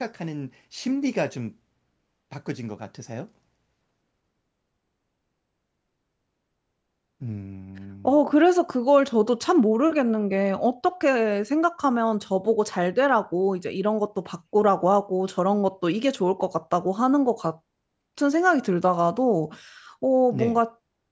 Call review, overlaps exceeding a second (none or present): none